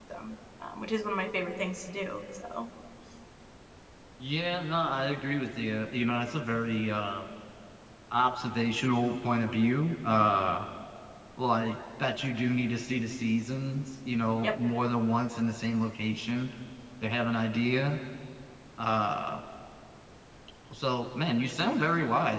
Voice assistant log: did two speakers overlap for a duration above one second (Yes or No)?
No